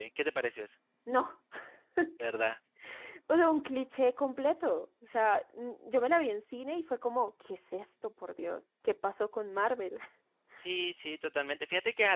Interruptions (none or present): none